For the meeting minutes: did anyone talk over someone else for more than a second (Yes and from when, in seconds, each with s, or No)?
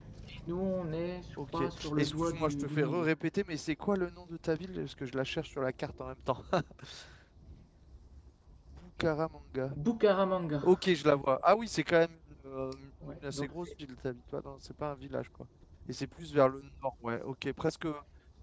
Yes, from 1.6 s